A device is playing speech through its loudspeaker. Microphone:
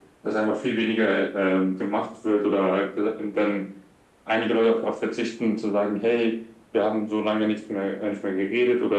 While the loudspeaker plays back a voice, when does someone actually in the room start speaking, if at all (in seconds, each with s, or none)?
none